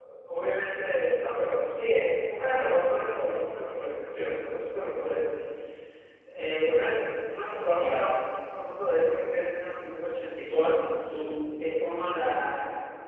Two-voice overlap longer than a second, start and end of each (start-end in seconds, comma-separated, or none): none